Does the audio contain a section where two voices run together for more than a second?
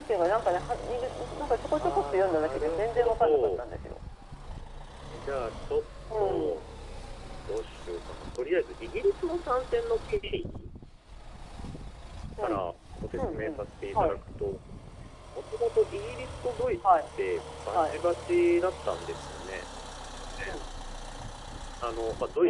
Yes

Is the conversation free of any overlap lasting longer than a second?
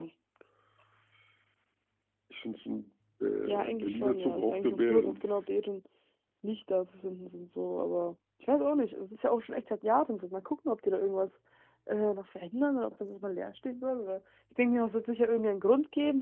No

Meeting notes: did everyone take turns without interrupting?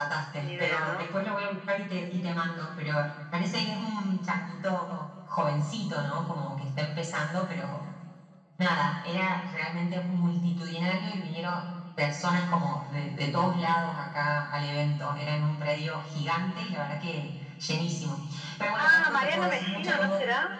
No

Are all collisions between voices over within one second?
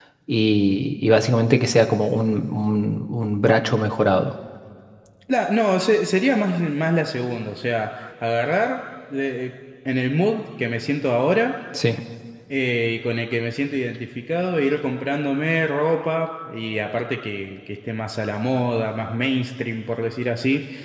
Yes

